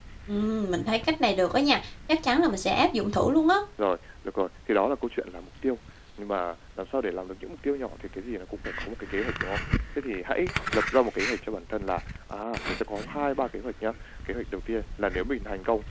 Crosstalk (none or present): none